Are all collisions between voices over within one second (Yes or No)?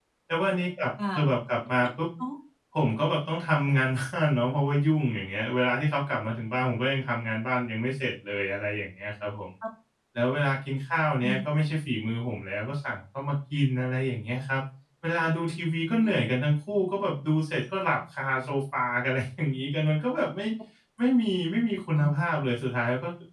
Yes